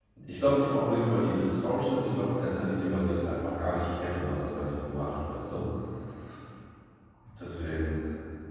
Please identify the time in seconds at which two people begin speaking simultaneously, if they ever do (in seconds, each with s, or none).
none